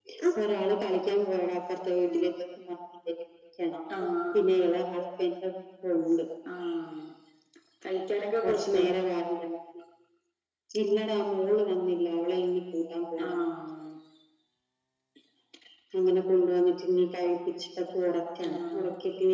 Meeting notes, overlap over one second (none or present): none